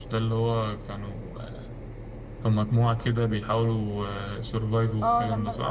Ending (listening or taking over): taking over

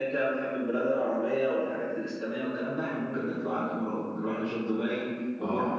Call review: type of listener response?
taking over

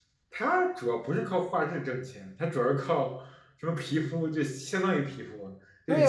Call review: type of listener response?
taking over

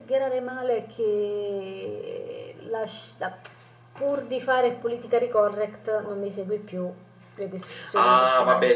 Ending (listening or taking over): taking over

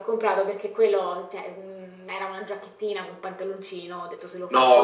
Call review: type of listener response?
listening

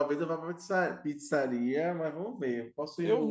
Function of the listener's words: listening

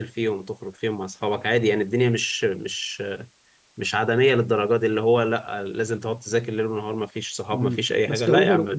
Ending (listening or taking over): taking over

